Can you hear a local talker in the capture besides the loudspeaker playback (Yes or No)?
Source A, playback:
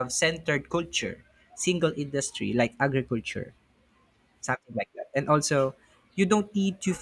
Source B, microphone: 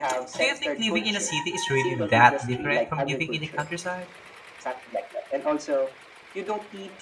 Yes